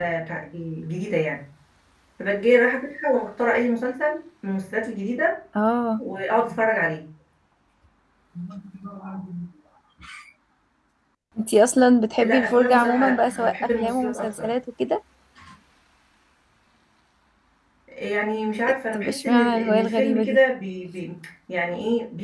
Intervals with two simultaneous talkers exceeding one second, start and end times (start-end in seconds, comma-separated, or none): 12.2-14.5, 18.9-20.4